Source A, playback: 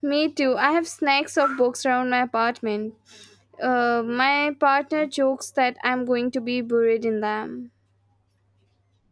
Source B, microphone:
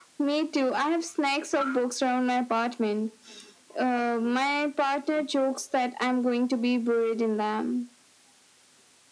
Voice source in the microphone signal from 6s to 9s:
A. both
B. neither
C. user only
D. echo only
D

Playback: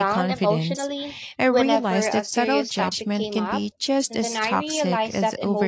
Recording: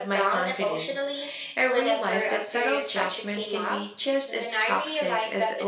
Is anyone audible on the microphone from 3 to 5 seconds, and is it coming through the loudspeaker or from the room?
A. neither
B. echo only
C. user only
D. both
B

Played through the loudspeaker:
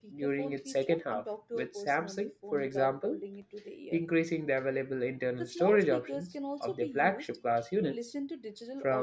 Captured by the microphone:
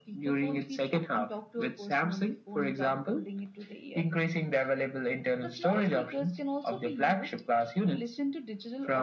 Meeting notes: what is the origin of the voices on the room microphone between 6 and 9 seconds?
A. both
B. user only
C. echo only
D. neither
C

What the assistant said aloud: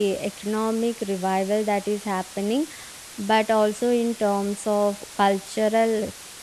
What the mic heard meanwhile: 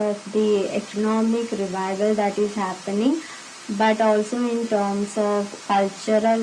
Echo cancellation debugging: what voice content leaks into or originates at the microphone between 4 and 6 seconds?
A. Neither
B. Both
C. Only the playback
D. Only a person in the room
C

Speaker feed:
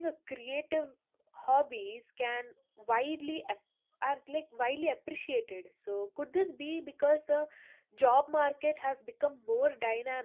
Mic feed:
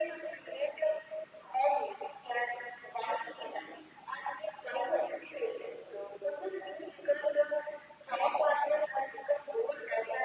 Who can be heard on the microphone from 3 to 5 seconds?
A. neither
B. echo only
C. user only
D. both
B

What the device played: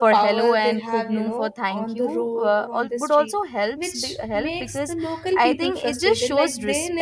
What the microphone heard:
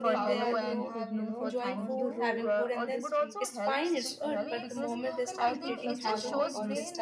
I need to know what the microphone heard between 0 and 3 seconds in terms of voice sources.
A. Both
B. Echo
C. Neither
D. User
A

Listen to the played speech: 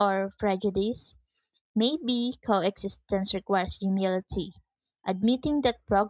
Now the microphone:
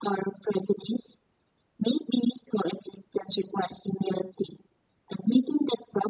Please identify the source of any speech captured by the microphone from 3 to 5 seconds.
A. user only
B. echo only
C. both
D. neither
B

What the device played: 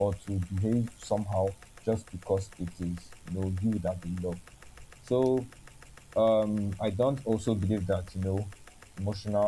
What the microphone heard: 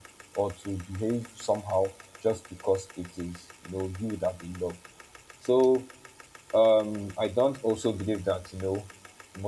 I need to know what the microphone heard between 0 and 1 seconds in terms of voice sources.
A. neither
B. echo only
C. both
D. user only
B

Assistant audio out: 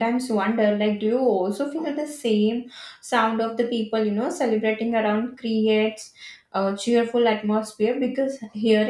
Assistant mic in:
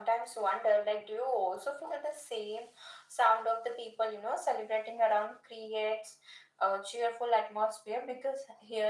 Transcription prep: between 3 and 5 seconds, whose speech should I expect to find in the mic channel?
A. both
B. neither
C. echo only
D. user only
C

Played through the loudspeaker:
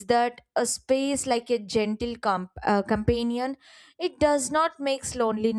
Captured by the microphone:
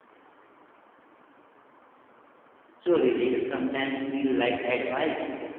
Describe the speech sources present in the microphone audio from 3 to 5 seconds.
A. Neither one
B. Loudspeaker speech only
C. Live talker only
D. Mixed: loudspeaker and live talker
C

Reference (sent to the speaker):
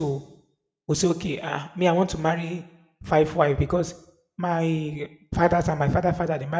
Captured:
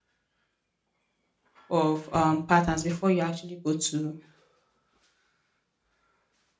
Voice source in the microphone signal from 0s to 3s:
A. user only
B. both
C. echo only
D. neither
A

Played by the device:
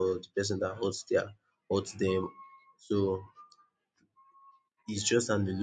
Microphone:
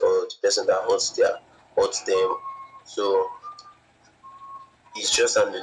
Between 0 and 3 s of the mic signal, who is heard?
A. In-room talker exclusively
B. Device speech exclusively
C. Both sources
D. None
B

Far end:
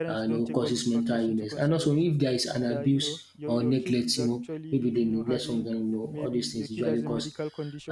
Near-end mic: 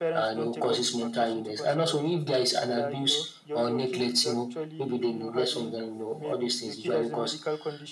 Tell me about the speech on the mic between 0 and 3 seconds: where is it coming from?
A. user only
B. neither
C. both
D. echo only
D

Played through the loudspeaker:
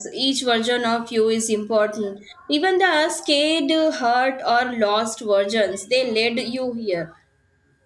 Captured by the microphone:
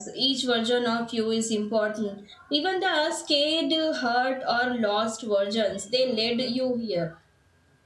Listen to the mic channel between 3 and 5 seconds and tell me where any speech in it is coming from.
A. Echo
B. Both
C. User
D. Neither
A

